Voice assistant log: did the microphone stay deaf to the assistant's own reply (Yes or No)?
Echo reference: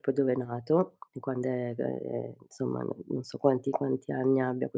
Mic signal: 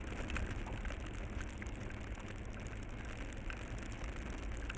Yes